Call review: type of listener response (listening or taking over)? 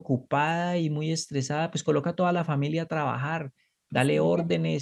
listening